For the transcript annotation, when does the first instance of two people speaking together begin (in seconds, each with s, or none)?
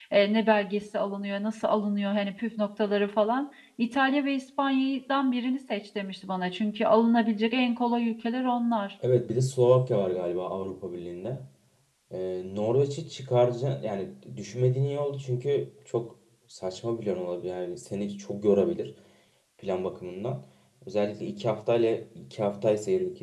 none